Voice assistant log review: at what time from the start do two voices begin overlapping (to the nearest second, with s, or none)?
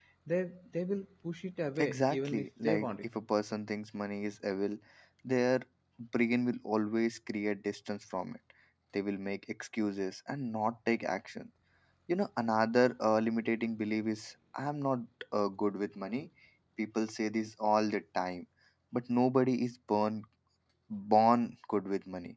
2 s